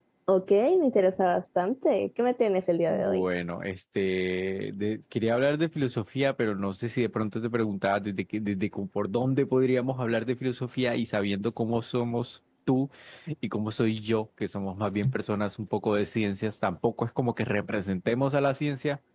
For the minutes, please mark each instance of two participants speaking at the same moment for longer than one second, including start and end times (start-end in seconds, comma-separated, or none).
none